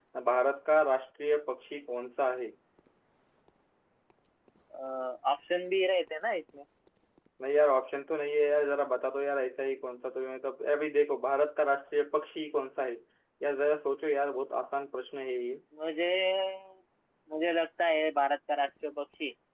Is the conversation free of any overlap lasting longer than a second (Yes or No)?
Yes